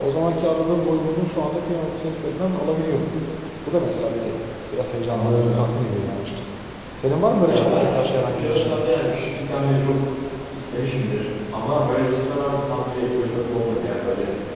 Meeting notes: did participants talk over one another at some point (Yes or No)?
Yes